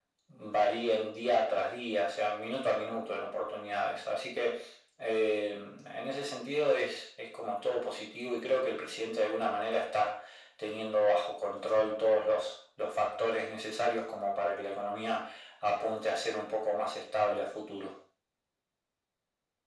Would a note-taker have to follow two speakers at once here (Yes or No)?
No